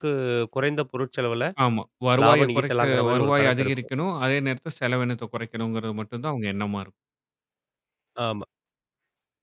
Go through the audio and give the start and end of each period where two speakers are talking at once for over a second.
2.2-3.7

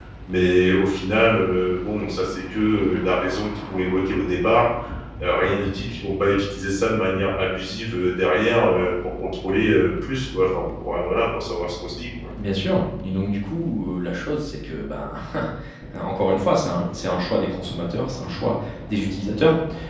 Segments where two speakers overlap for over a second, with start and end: none

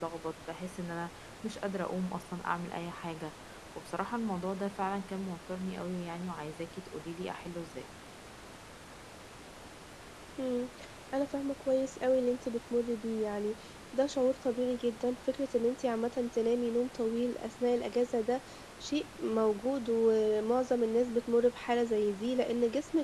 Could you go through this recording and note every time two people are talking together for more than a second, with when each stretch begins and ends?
none

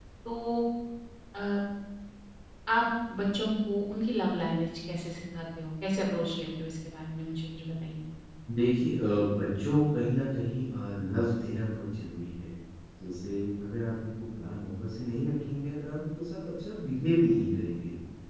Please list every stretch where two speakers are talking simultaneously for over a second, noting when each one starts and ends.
none

